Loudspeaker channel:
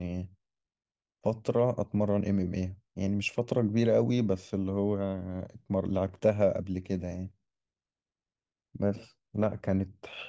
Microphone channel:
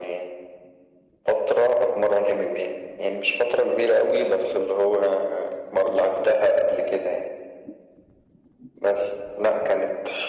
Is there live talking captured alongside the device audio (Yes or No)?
No